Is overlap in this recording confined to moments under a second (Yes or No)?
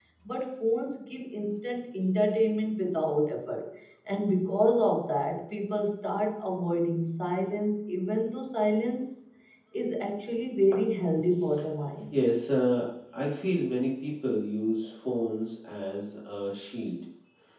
Yes